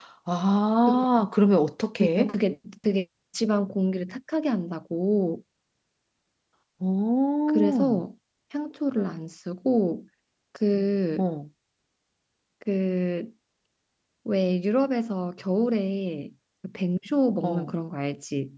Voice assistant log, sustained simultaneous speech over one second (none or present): none